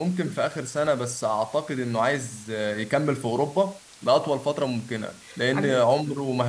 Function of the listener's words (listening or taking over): listening